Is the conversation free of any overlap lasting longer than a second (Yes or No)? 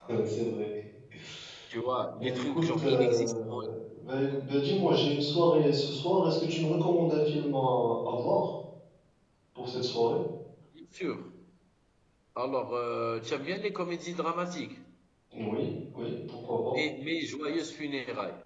No